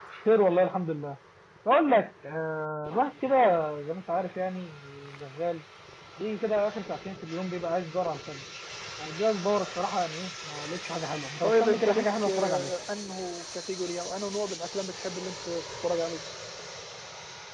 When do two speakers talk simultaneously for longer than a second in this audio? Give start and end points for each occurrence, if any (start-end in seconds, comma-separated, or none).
11.4-12.7